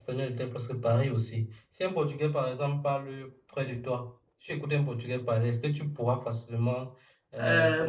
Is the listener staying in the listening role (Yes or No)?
No